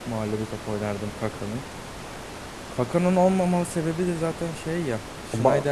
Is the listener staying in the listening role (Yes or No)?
Yes